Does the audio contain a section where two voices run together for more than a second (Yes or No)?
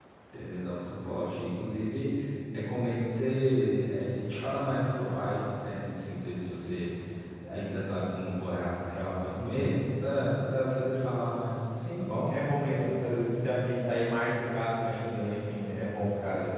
No